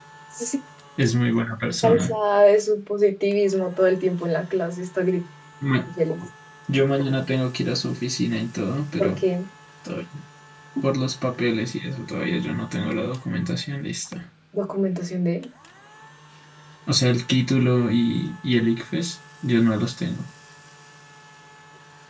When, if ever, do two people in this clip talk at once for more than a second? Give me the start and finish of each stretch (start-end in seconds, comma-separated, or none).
none